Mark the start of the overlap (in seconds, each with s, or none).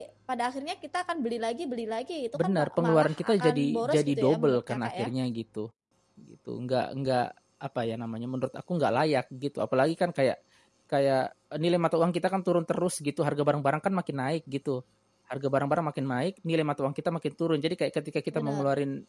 2.4 s